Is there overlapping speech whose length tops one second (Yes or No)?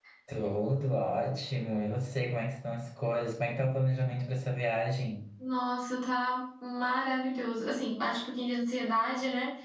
No